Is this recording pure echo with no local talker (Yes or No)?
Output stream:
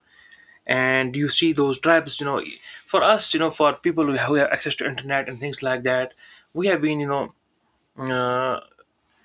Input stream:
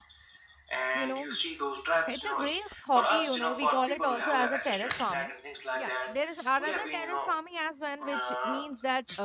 No